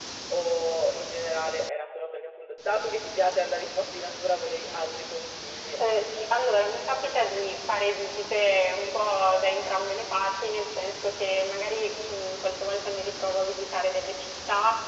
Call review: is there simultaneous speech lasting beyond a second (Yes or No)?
No